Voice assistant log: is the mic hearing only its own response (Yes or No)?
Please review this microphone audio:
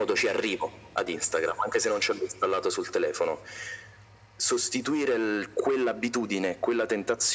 Yes